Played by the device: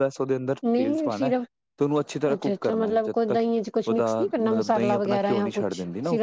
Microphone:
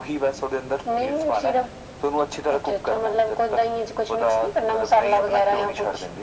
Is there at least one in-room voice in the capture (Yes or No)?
No